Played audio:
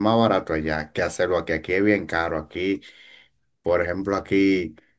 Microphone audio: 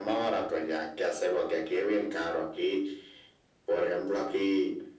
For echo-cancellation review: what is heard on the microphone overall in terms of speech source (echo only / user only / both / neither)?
echo only